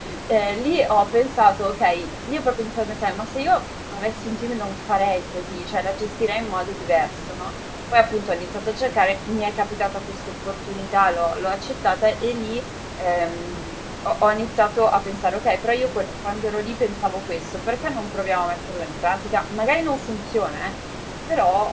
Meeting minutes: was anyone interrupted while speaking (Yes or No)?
No